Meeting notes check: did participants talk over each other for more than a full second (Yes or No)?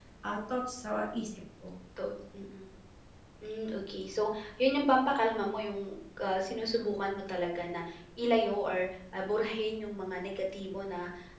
No